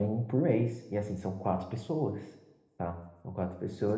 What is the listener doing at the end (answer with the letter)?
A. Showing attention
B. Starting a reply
B